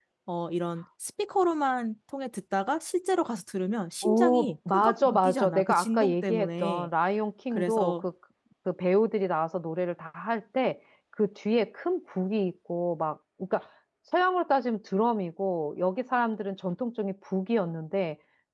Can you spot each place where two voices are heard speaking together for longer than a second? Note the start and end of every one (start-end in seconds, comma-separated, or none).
4.0-6.9